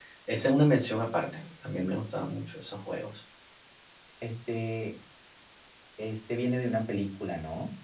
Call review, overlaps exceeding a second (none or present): none